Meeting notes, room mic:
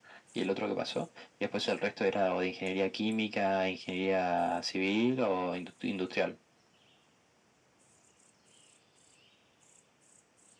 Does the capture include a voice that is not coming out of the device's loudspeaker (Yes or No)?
No